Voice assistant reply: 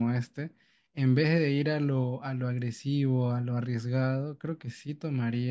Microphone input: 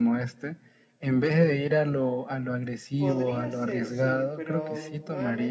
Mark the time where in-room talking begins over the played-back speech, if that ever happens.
3.0 s

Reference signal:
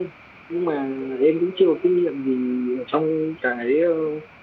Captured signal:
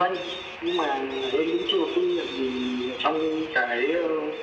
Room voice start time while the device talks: none

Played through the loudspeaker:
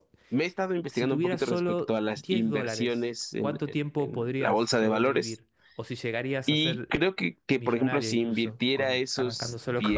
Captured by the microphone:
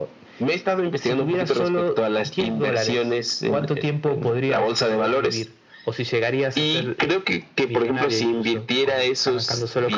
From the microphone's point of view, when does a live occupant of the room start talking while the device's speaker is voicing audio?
none

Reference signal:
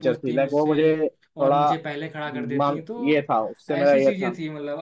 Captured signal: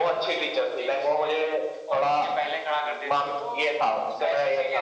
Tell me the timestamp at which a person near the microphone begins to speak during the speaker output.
none

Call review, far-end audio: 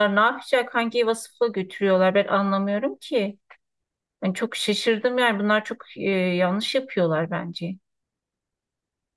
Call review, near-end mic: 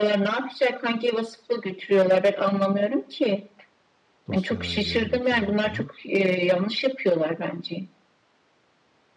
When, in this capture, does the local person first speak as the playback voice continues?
4.3 s

